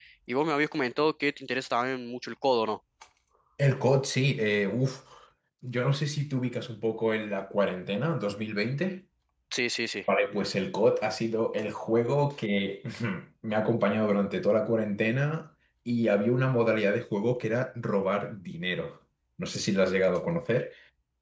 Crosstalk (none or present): none